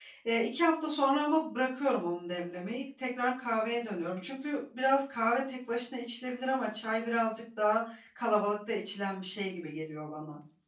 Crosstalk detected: No

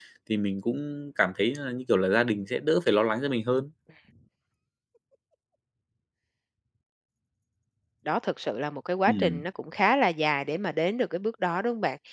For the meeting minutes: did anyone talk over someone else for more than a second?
No

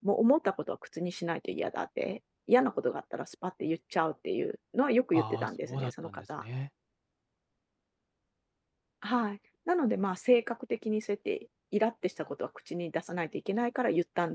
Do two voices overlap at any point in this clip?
Yes, from 5.1 s

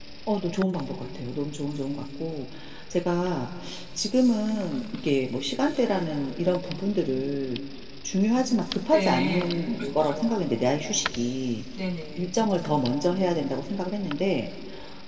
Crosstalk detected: Yes, from 8.9 s

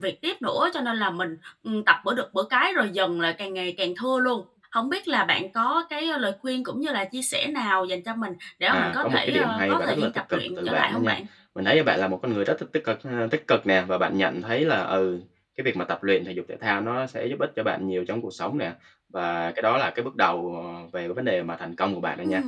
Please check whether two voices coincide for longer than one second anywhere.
Yes, from 8.7 s

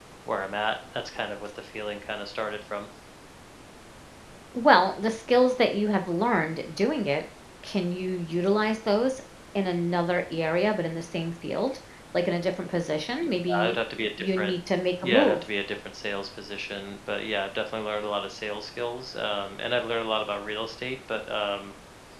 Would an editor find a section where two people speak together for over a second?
No

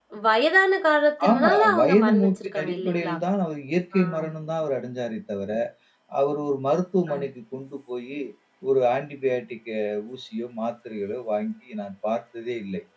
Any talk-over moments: Yes, from 1.3 s

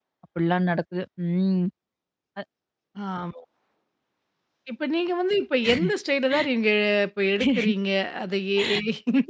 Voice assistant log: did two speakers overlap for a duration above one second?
No

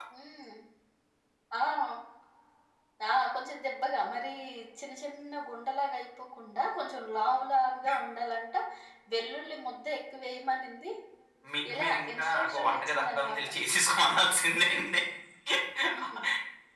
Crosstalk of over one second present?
Yes, from 11.7 s

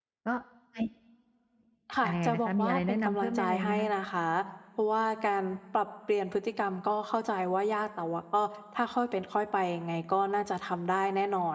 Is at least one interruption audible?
Yes, from 2.0 s

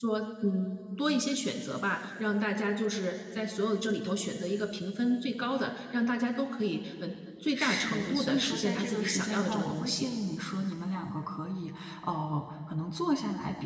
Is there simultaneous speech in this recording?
Yes, from 7.5 s

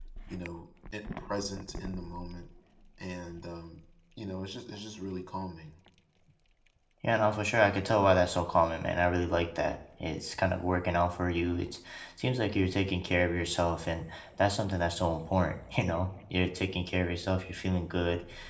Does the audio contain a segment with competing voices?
No

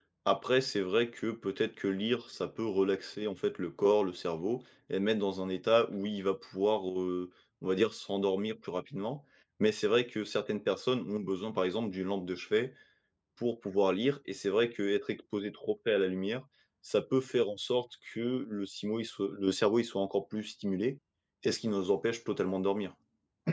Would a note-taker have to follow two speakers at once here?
No

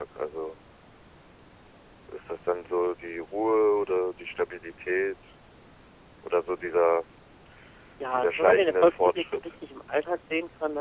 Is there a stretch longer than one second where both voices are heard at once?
Yes, from 8.1 s

